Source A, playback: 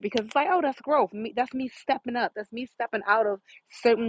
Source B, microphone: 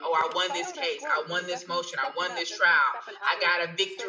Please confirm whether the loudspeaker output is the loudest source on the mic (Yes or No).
No